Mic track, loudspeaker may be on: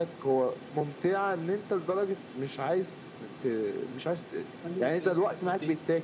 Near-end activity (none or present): present